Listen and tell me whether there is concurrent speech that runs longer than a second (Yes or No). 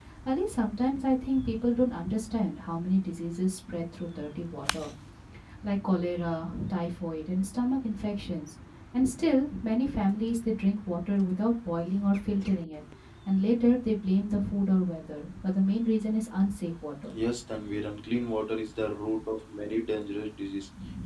No